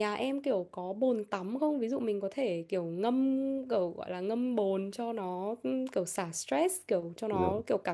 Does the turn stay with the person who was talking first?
Yes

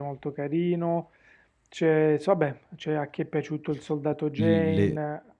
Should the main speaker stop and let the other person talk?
Yes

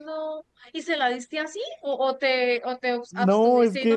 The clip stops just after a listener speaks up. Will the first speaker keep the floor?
No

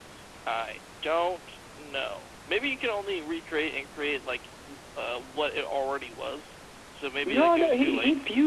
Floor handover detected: Yes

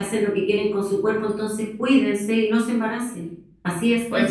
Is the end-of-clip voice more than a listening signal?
Yes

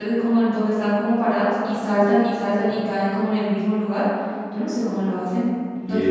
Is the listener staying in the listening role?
No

